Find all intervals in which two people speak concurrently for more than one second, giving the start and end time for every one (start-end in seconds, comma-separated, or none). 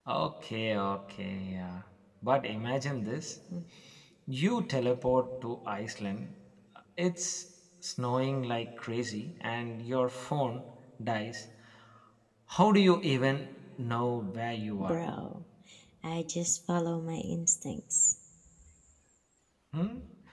none